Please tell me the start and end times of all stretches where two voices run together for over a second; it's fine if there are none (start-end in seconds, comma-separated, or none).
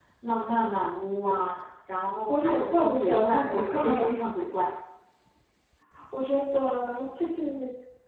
2.3-4.2